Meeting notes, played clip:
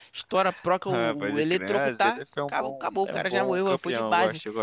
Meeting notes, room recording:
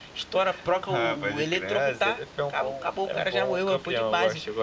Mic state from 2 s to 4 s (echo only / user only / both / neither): echo only